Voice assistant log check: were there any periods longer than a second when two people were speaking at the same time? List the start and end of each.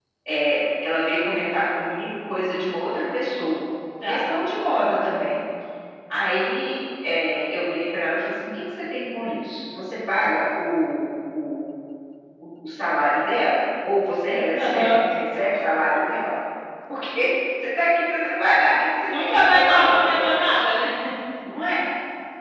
19.2-20.5

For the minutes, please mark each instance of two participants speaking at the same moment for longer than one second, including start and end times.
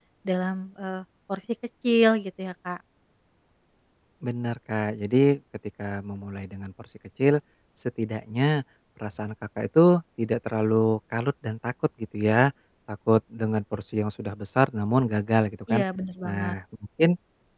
none

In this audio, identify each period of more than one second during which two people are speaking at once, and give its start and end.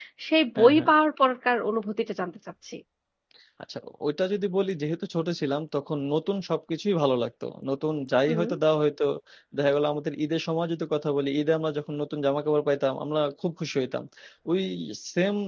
none

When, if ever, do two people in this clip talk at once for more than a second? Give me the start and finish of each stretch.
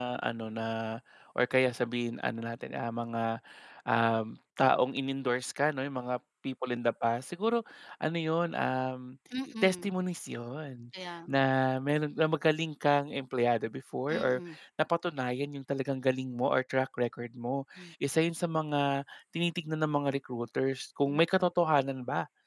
none

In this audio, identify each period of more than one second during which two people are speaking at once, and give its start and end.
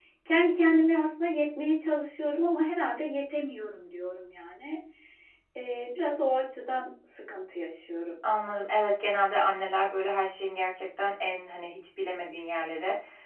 none

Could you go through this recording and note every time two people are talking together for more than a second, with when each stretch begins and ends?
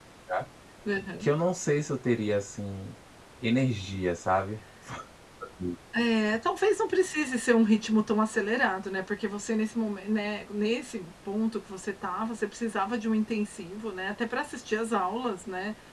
none

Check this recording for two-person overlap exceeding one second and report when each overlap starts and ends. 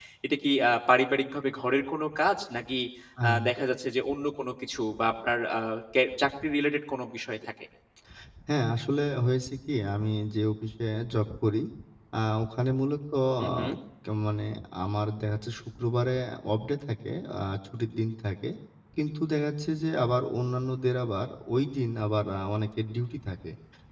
none

